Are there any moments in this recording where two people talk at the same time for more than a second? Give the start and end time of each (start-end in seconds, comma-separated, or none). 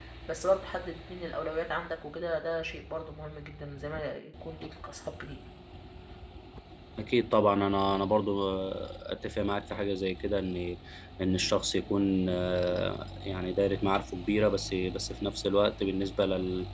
none